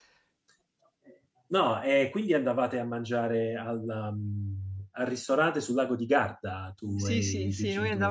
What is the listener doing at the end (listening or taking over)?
taking over